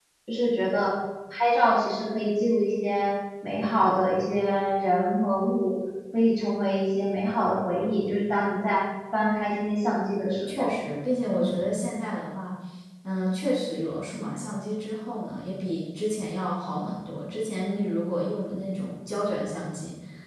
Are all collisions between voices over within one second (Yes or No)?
Yes